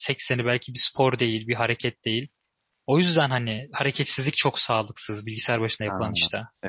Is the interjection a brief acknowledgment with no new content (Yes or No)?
No